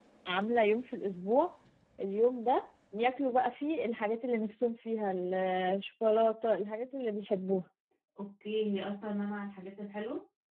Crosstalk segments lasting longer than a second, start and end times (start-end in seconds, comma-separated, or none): none